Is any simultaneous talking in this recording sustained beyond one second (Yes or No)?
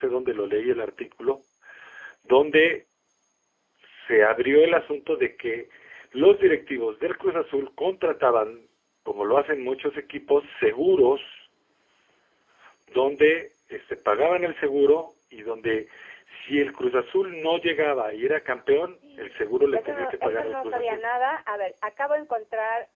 Yes